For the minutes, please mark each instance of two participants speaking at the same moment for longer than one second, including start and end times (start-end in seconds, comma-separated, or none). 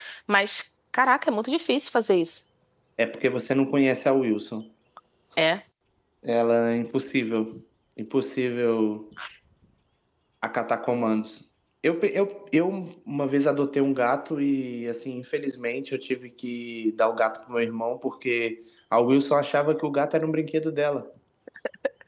none